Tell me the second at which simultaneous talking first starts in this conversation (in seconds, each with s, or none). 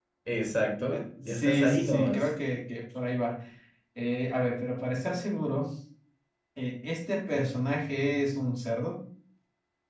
0.8 s